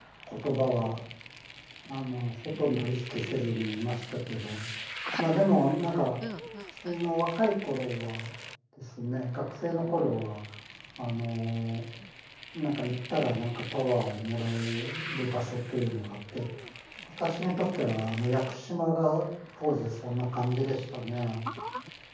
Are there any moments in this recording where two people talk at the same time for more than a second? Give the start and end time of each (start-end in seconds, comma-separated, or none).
none